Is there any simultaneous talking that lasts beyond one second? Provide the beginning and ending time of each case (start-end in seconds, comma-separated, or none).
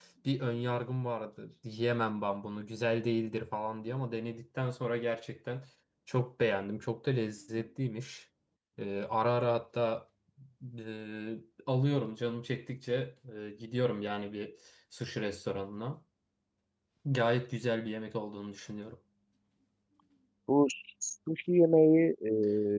none